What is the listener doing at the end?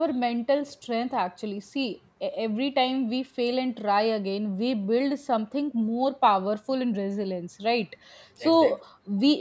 listening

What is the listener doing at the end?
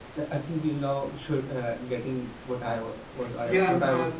taking over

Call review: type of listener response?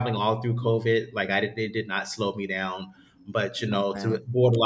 listening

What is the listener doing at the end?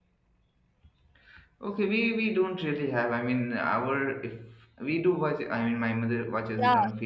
taking over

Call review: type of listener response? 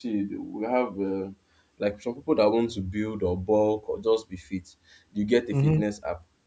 listening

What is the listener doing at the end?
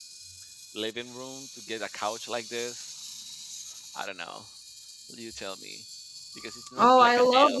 taking over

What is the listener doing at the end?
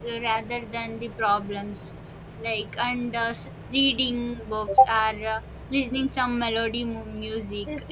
taking over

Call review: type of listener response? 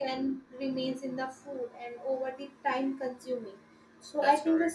listening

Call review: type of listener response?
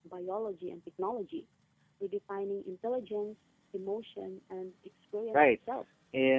taking over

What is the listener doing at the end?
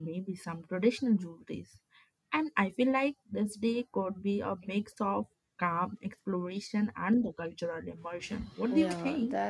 taking over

